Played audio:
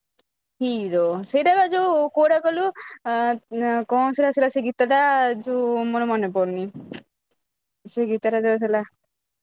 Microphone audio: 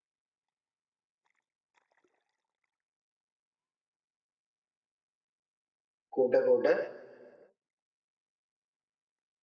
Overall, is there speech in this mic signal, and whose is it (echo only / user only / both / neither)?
user only